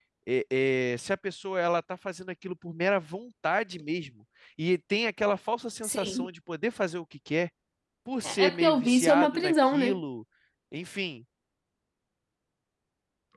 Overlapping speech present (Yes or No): Yes